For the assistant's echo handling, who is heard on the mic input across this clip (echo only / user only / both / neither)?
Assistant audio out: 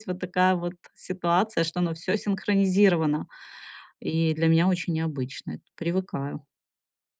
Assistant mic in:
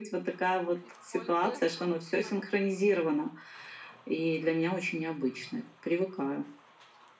both